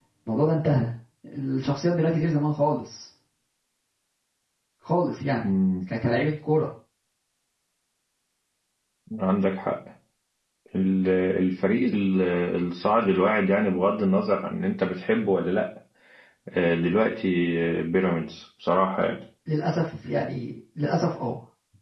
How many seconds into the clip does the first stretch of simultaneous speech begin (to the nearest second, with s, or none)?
none